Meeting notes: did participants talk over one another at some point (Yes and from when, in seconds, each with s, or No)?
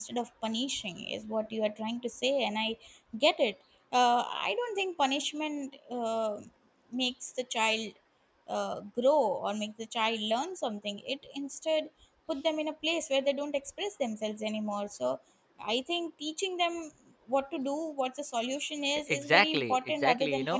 Yes, from 19.1 s